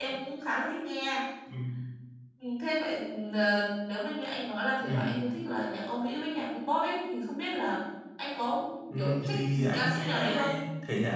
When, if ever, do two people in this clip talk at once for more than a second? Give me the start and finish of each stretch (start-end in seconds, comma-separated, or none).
9.0-10.5